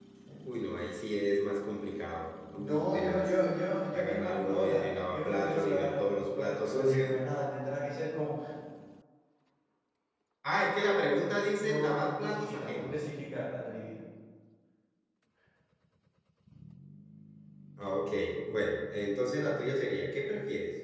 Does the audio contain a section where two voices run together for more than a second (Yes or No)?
Yes